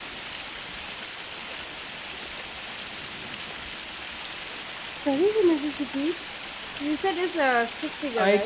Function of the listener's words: taking over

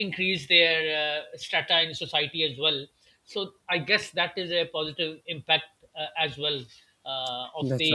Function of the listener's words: listening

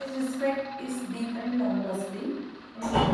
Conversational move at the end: listening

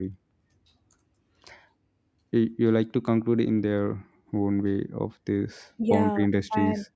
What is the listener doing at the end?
taking over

